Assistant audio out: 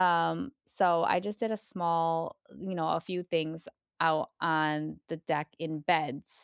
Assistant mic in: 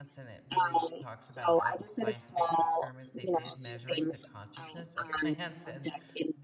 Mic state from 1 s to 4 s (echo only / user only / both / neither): both